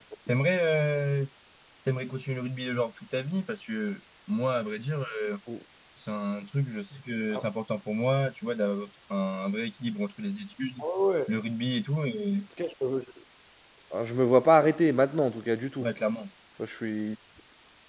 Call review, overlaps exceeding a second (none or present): none